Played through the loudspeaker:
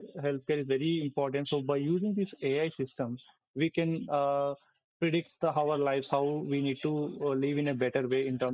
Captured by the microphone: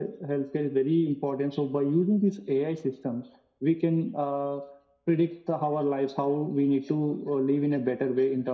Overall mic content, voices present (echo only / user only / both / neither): echo only